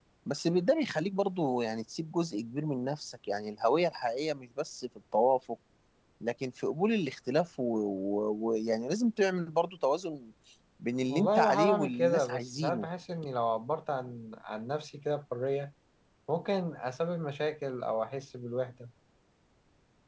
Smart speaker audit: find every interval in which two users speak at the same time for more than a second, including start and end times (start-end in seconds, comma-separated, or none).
11.1-12.9